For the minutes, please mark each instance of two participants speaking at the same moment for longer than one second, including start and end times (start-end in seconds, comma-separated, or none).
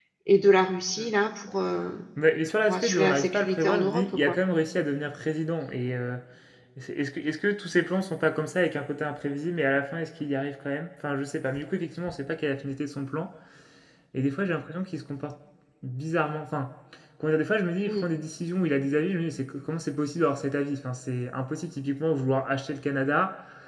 2.7-4.4